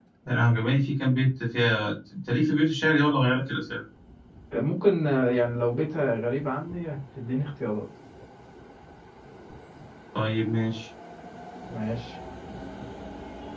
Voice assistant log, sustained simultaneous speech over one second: none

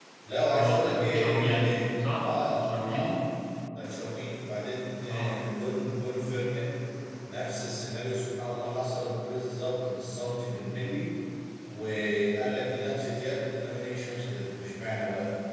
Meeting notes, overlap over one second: present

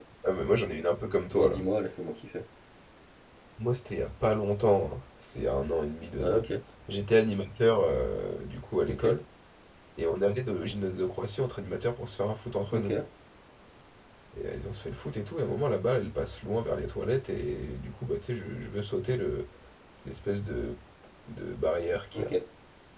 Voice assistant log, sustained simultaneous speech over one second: none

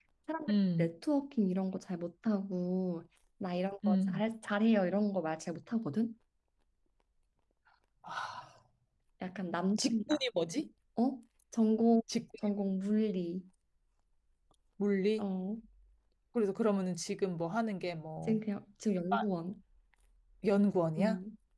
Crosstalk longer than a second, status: none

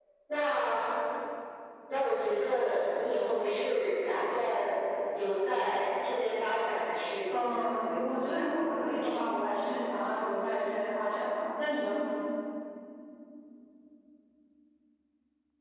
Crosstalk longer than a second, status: present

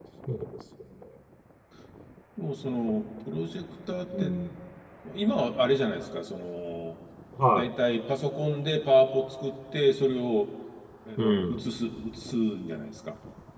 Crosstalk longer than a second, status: none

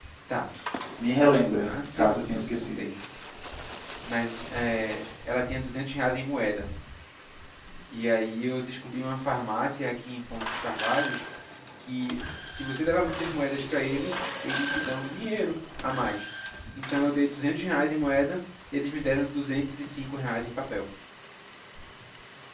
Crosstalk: present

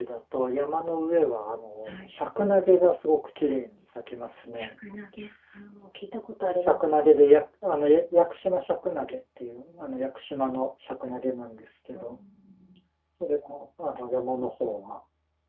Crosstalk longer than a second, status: none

